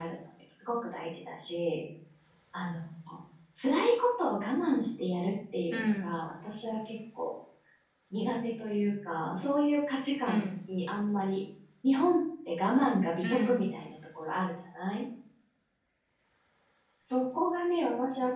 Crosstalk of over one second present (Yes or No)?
No